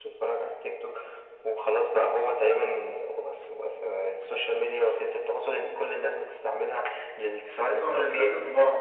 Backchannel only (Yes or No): No